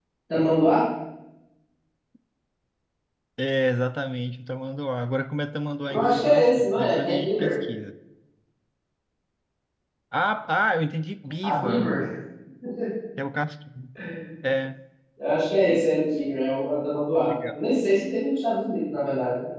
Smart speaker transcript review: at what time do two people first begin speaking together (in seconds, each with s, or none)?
5.9 s